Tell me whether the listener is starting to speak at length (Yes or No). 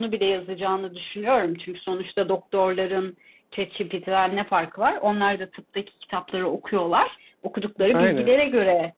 No